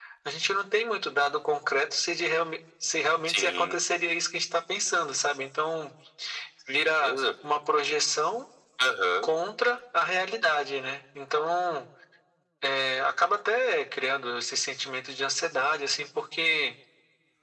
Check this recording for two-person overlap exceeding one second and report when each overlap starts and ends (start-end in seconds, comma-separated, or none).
none